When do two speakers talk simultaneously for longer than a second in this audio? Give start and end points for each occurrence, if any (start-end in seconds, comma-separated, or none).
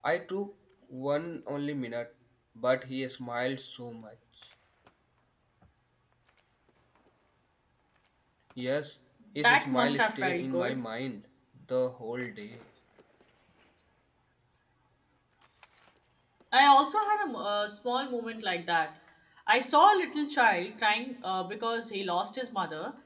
9.4-10.8